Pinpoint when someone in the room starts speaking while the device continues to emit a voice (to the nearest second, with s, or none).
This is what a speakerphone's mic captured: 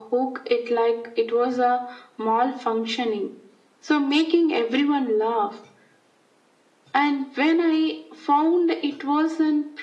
none